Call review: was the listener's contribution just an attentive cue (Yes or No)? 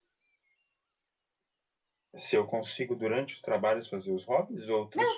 No